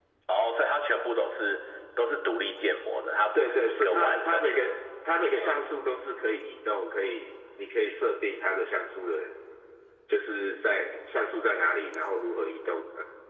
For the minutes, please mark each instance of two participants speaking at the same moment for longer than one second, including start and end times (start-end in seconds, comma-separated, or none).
3.4-4.7